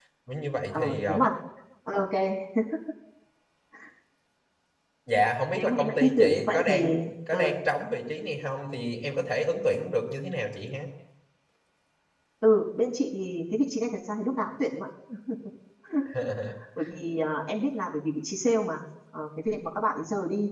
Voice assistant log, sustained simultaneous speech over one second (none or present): present